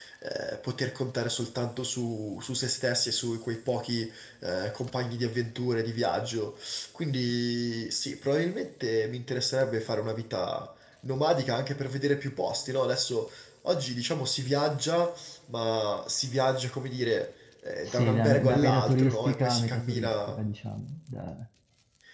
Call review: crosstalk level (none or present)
present